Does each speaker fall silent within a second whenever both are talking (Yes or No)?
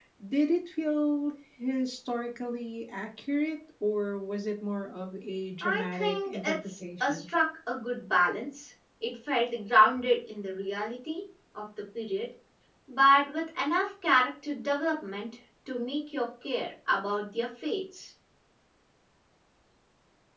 No